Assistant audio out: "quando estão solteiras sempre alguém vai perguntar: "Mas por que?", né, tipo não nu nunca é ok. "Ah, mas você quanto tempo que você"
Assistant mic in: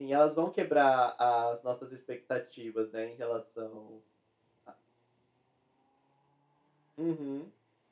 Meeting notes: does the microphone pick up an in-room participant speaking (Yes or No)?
Yes